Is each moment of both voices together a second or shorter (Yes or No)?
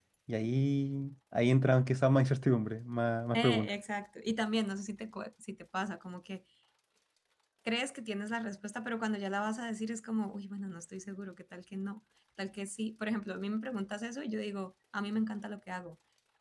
Yes